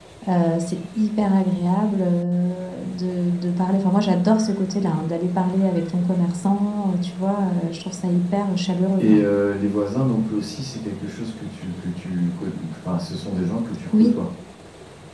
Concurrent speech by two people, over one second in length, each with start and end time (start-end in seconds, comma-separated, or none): none